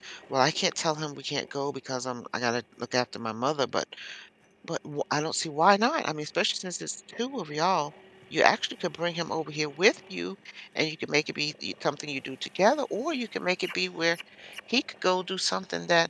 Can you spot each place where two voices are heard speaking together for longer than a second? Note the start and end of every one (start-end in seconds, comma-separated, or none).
none